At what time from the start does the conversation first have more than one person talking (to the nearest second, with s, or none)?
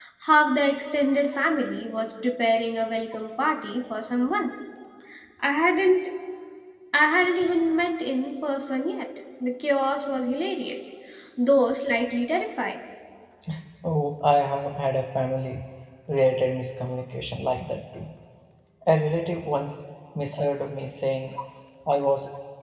none